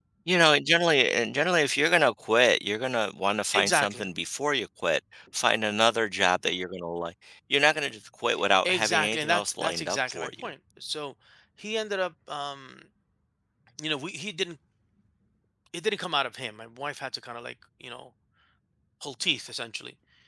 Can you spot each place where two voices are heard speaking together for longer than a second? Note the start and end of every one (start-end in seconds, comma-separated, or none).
8.6-10.5